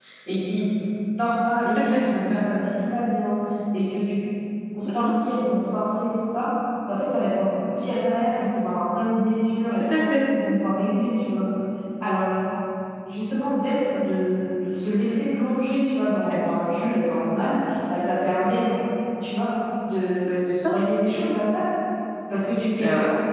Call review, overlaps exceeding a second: none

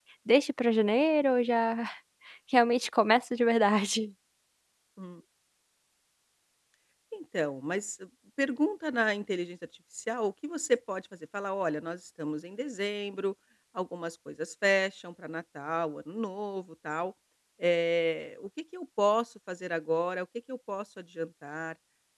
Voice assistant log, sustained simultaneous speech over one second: none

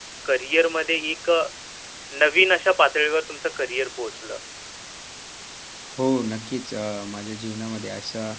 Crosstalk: none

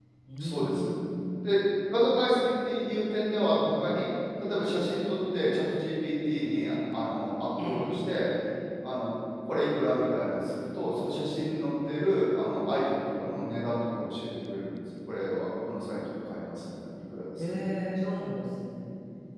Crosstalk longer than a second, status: none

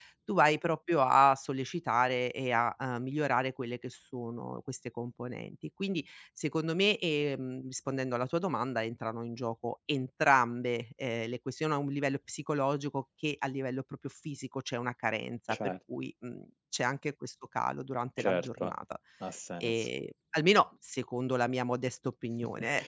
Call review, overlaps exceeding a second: none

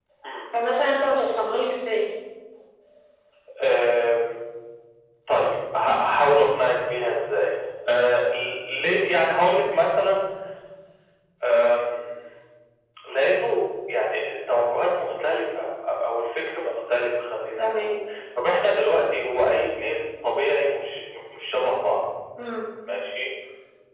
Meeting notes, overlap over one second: none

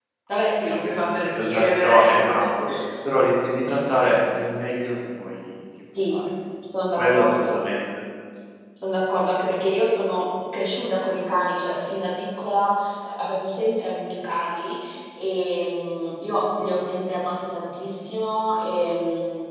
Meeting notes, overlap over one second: present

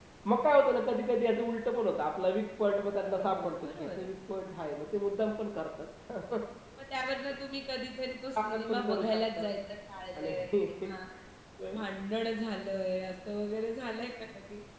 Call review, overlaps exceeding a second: present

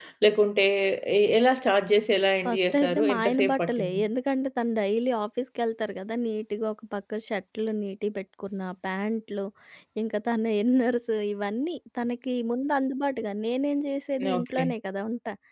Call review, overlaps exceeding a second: present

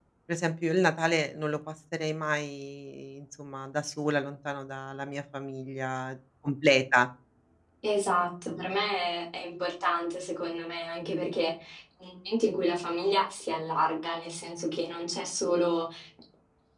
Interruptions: none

